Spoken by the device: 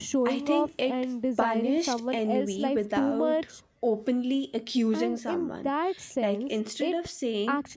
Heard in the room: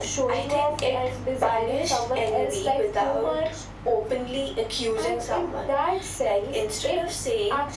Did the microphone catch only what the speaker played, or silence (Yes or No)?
Yes